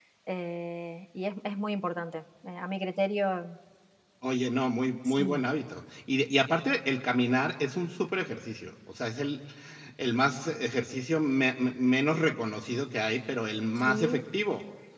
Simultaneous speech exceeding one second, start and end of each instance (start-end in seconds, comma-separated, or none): none